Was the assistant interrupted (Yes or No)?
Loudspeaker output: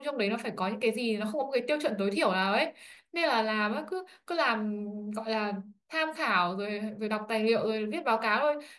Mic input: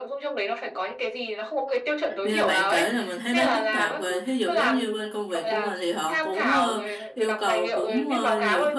Yes